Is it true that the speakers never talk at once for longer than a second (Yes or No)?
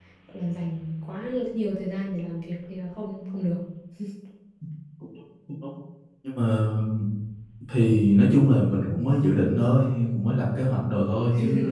Yes